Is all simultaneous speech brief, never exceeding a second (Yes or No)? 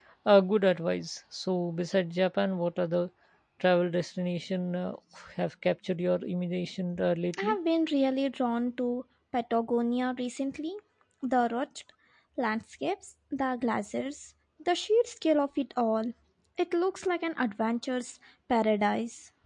Yes